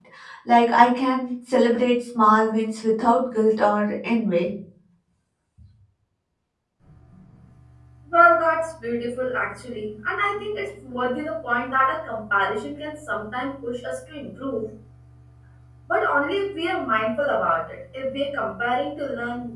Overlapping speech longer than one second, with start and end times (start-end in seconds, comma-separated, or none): none